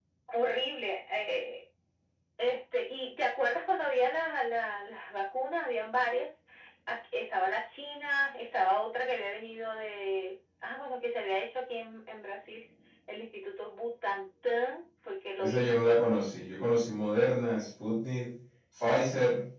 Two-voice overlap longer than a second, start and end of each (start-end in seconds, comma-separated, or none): none